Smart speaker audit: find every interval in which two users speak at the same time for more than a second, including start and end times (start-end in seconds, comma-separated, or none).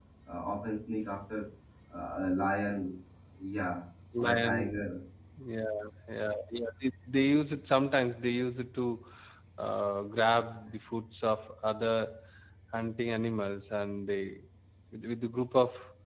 none